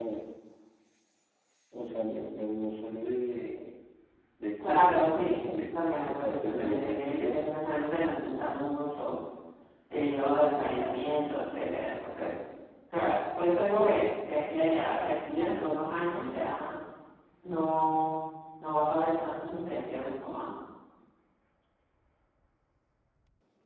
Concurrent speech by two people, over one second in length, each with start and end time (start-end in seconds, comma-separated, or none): 4.6-7.4